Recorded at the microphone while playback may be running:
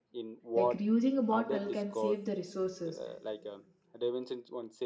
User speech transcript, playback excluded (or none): like reusing a bottle can save the resources